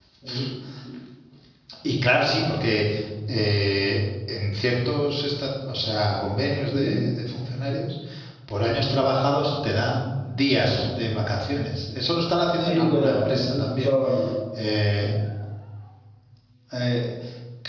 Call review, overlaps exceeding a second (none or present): present